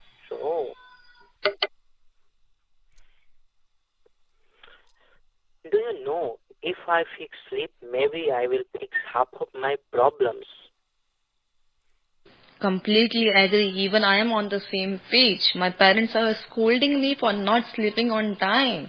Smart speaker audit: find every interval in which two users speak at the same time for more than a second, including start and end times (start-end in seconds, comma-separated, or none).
none